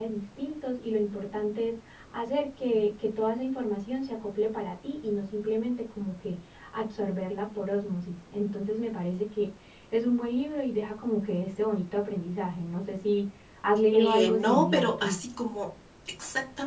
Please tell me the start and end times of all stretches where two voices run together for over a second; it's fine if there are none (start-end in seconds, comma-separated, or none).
13.9-15.2